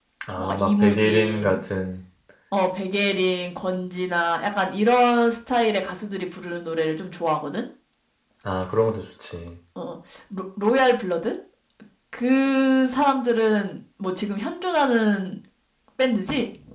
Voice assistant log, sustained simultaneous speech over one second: present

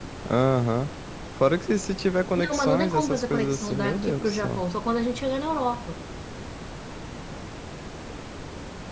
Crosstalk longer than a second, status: present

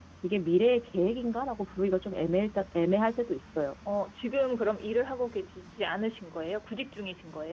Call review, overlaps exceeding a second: none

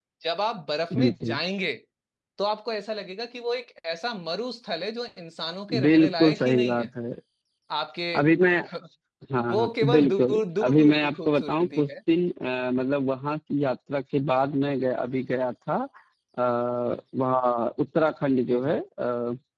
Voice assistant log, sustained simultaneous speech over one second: present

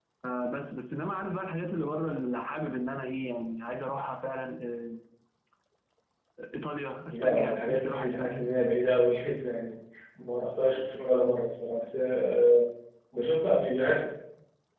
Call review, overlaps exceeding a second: present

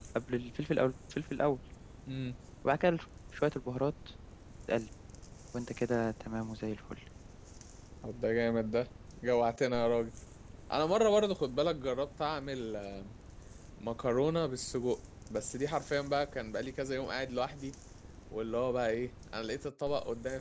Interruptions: none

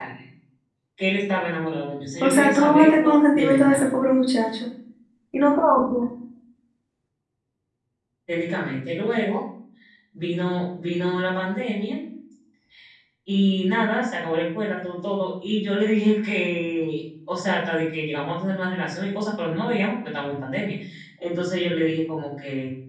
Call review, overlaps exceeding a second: present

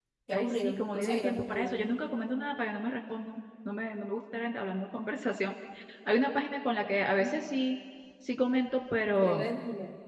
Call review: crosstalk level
present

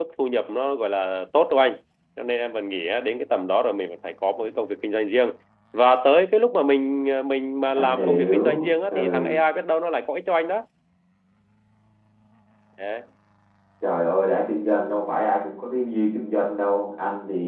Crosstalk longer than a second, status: present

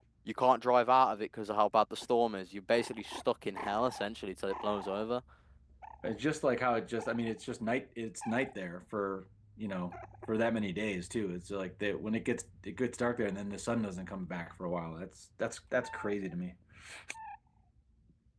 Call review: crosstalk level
none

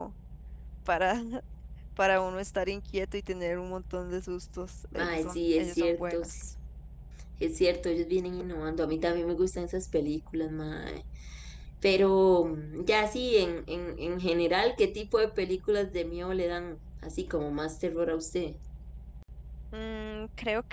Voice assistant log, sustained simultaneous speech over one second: present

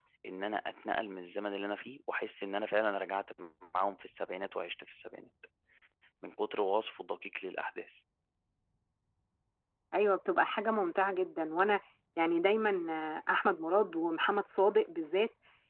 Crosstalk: none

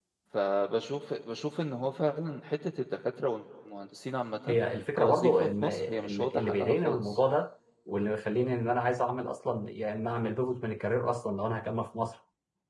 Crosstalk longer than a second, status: present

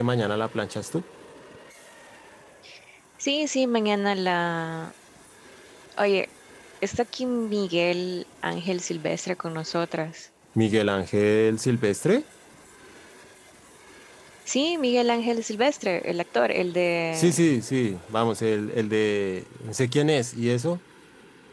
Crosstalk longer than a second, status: none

